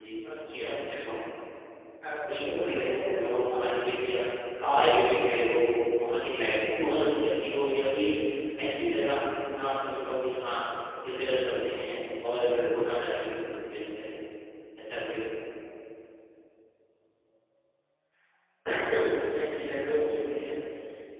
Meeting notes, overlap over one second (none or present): present